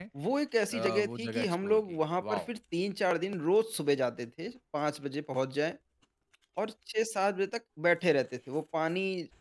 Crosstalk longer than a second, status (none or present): present